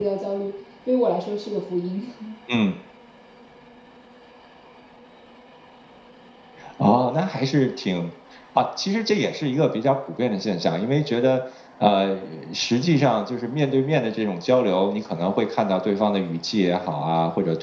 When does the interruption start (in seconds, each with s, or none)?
none